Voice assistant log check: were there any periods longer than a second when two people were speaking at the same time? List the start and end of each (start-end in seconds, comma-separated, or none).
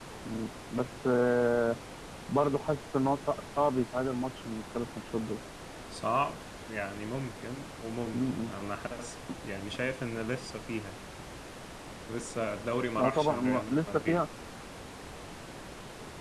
13.0-14.2